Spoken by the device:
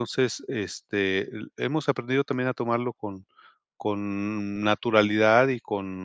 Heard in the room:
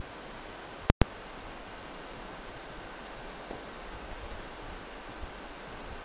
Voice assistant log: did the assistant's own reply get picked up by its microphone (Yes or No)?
No